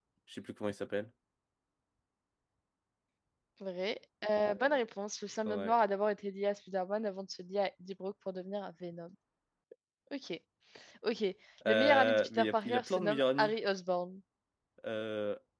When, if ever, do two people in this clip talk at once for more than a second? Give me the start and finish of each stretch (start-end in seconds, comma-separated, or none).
11.7-13.5